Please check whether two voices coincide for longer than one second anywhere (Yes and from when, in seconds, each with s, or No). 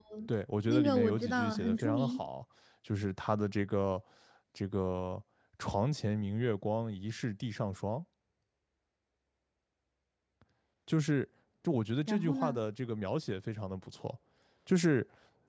Yes, from 0.7 s